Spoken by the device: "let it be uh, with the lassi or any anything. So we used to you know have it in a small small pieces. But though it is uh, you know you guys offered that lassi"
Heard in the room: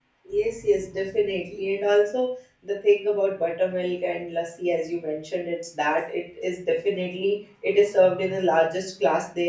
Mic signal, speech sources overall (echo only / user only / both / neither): user only